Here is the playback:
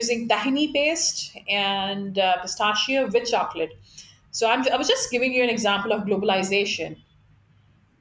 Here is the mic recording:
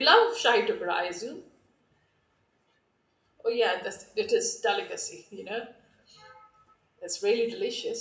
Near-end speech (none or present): present